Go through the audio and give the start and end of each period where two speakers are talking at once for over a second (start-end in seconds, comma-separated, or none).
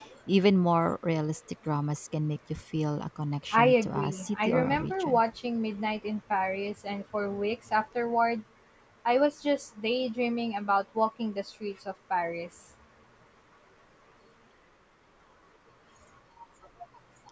3.5-5.2